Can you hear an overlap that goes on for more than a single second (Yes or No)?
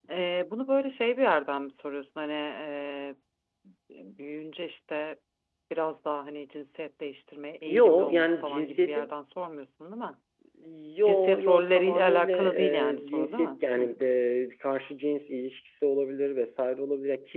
Yes